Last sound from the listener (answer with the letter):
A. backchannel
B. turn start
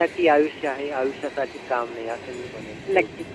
B